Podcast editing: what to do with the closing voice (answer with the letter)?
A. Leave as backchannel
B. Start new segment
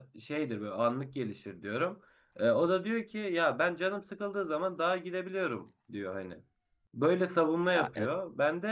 A